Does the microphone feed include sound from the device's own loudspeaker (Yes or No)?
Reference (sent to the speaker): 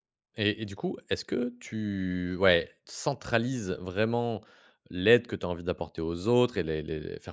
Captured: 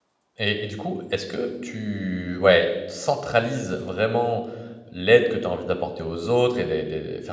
Yes